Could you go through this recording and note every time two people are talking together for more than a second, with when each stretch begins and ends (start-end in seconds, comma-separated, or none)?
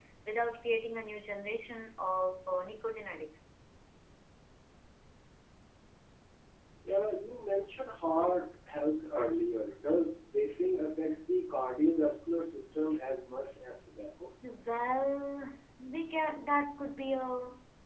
none